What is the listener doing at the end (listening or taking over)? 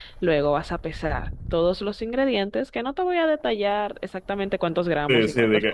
taking over